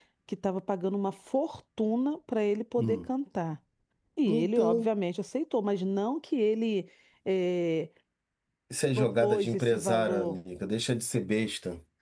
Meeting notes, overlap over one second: present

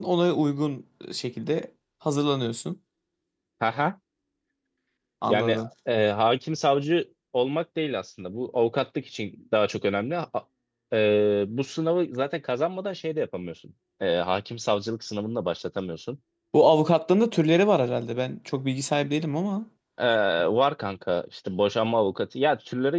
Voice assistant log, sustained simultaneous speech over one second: none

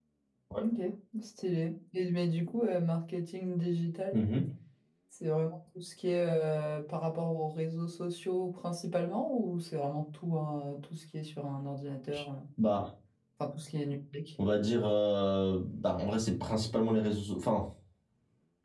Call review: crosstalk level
none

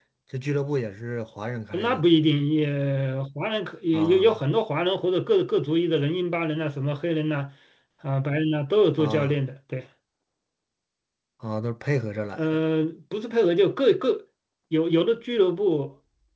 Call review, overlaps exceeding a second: none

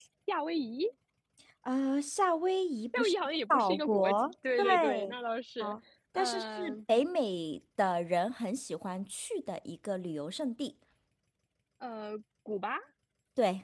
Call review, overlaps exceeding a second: present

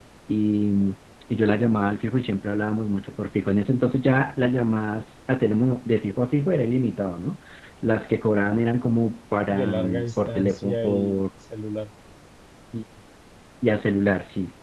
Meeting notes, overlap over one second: present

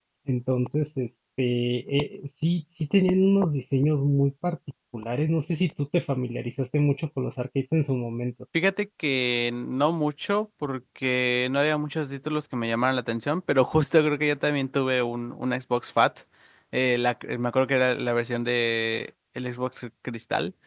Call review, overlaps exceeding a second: none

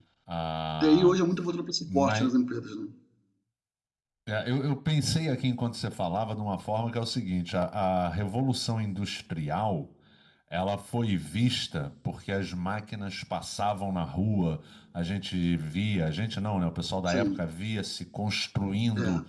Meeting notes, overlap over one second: none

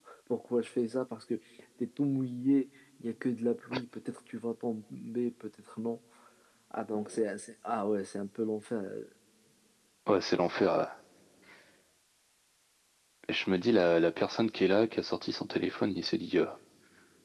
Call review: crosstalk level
none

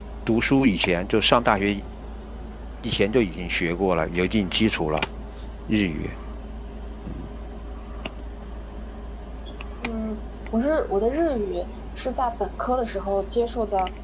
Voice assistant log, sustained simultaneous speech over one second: none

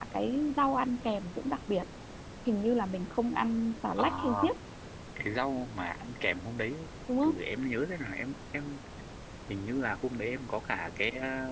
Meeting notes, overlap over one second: none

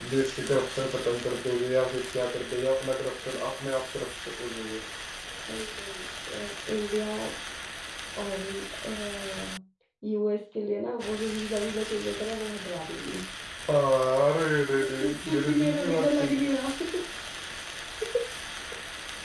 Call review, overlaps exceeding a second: present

